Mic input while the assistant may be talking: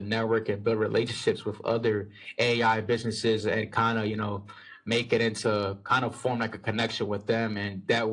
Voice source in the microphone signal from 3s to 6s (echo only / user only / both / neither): echo only